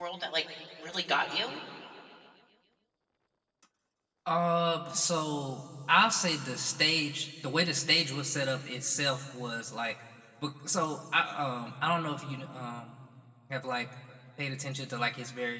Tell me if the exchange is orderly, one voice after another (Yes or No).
Yes